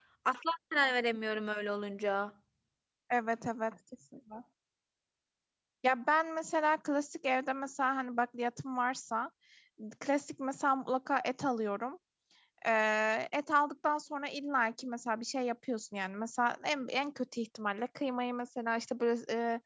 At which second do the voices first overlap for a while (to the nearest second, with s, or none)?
none